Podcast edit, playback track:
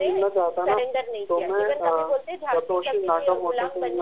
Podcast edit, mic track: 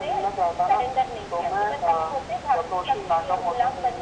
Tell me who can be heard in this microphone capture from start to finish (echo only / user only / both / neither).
echo only